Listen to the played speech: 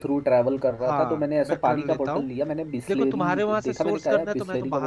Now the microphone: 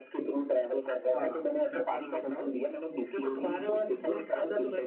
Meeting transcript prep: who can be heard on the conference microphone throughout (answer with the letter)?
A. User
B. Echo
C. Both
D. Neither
B